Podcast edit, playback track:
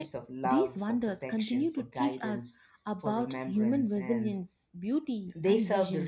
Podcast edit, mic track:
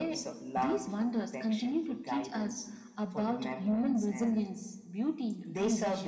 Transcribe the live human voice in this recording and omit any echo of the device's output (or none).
none